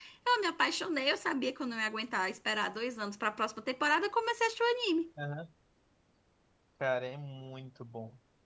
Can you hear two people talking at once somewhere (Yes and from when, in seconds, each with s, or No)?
No